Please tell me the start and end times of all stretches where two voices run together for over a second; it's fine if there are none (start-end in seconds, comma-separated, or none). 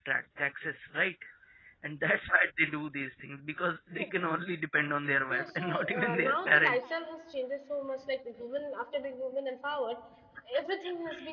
5.3-6.9